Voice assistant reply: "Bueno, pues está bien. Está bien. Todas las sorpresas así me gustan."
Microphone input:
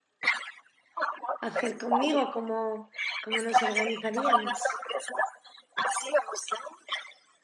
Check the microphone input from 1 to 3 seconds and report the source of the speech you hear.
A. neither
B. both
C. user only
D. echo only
B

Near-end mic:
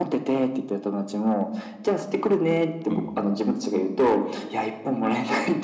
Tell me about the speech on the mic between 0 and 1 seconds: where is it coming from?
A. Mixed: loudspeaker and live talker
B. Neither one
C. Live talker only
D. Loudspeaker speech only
D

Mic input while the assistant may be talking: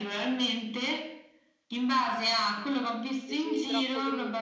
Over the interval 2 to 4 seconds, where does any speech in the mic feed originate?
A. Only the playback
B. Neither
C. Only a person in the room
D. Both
D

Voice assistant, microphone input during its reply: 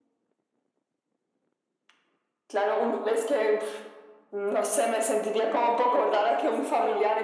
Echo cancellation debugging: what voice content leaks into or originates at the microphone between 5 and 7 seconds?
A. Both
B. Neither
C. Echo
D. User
A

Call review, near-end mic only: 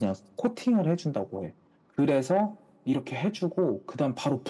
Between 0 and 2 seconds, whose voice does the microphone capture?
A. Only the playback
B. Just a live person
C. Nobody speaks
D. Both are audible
A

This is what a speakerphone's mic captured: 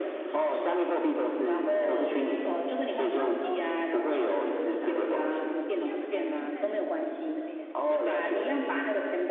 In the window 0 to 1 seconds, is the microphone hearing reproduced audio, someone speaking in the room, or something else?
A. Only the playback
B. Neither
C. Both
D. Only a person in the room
A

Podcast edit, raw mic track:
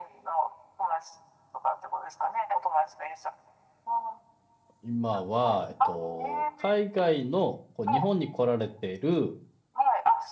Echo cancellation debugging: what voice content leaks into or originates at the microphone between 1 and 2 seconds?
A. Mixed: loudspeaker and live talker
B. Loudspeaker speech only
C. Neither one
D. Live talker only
B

